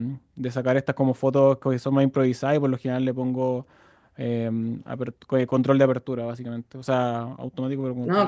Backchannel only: No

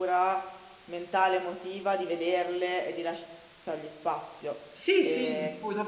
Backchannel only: No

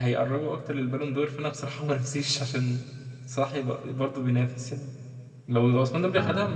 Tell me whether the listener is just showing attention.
Yes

